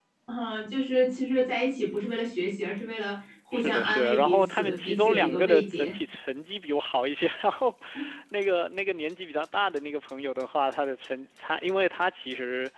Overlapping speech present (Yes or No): Yes